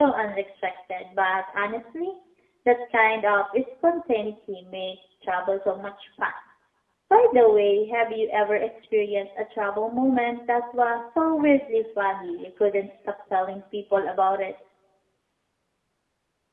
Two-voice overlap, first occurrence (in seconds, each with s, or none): none